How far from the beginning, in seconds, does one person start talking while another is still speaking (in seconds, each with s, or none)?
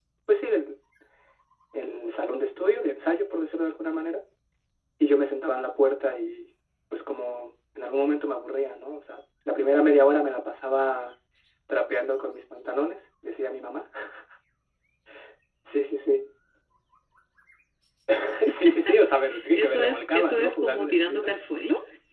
19.5 s